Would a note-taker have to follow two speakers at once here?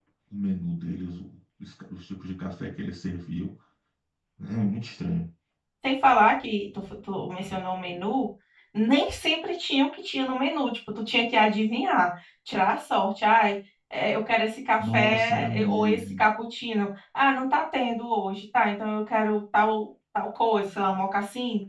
Yes, from 14.8 s

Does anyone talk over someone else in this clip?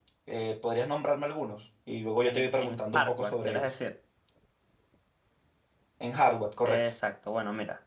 Yes, from 2.3 s

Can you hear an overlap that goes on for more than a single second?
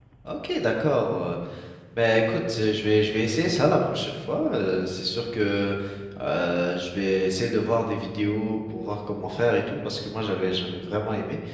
No

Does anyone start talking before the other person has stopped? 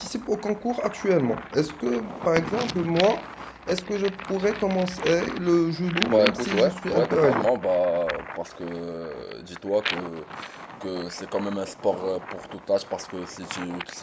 Yes, from 6.0 s

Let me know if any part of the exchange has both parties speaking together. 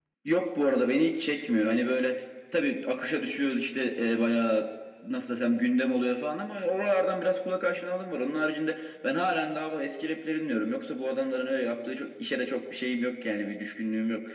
No

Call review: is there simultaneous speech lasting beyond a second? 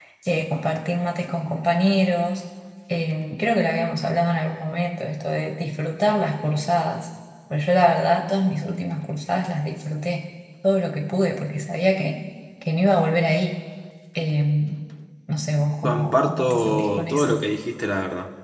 Yes, from 15.8 s

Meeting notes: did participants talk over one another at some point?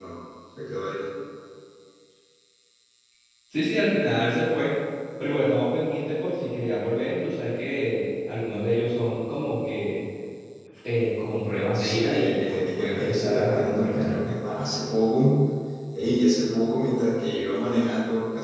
Yes, from 11.7 s

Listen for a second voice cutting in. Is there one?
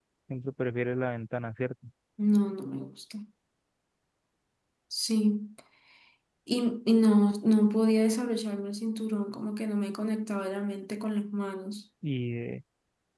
No

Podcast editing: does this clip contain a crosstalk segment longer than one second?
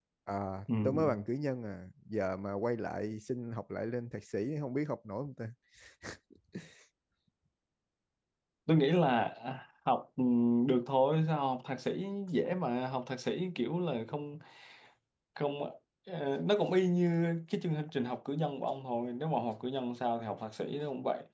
No

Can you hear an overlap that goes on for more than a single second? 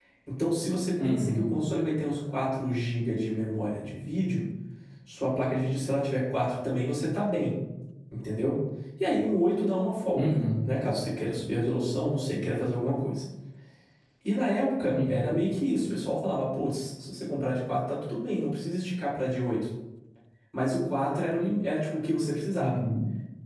No

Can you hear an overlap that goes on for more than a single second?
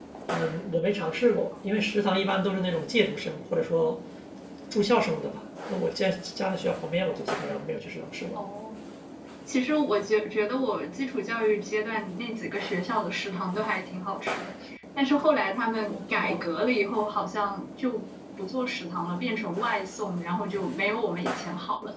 No

